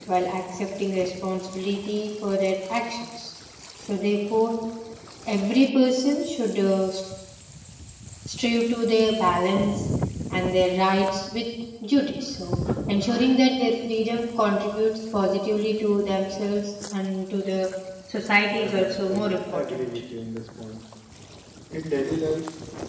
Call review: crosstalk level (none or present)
present